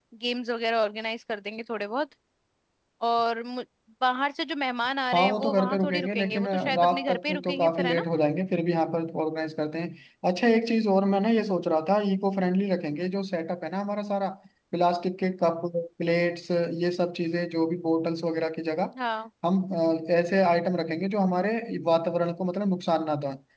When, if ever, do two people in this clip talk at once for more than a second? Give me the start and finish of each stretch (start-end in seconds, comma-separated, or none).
5.1-8.1